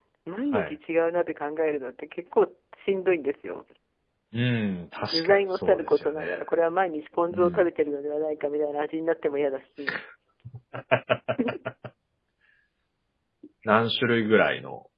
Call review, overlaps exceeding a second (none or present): present